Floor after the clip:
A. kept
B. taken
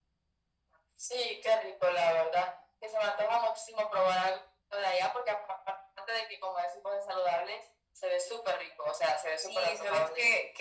B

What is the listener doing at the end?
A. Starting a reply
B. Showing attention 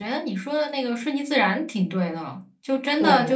B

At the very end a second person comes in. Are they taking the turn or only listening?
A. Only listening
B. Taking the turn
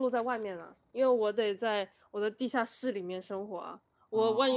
A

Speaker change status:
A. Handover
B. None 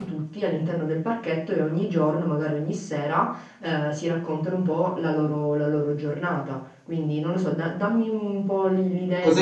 A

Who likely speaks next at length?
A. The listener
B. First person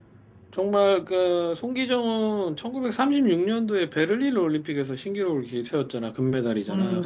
B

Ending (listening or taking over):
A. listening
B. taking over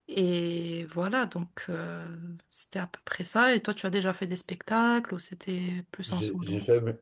B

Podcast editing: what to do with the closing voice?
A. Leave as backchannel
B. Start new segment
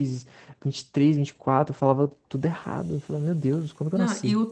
B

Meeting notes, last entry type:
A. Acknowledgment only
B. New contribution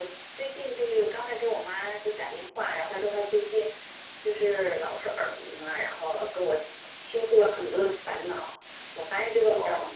A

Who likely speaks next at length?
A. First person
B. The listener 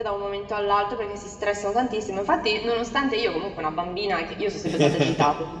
A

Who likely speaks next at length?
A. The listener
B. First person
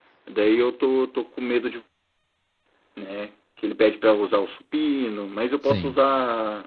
B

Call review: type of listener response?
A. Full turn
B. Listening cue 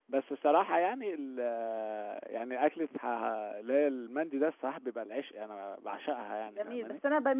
A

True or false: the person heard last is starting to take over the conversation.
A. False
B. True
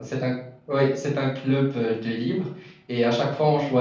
A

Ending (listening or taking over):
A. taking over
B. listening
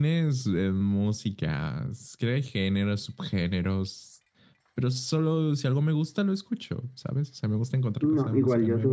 A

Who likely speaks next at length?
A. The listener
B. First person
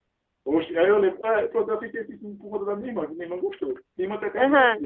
A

